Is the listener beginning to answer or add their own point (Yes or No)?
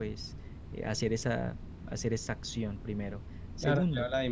Yes